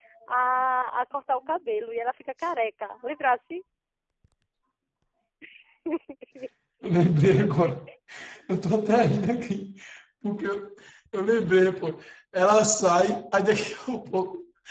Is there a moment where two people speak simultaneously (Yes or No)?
No